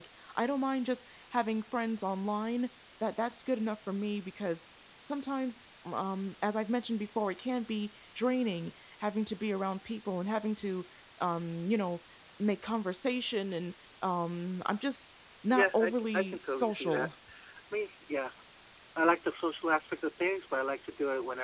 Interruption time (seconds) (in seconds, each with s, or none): 15.5 s